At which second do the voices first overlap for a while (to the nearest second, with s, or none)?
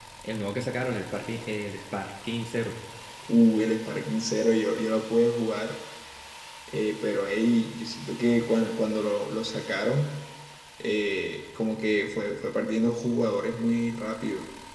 none